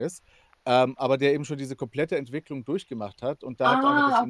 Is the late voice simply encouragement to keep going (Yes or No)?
Yes